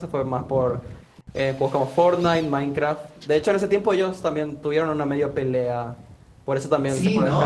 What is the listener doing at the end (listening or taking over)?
taking over